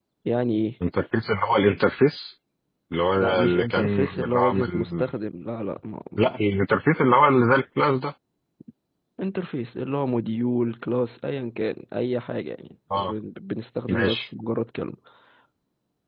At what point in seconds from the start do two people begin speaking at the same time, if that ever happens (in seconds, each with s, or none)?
3.2 s